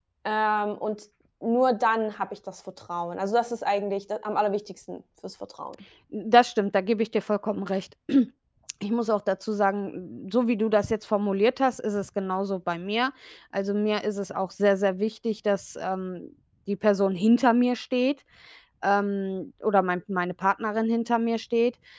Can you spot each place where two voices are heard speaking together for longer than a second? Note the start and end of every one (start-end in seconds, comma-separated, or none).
none